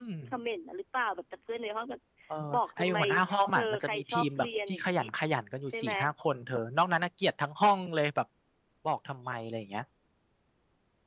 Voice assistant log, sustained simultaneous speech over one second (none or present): present